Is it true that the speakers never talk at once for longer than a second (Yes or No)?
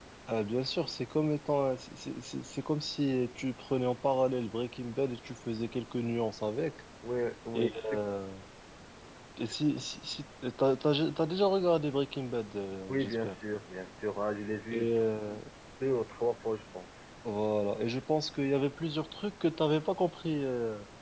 Yes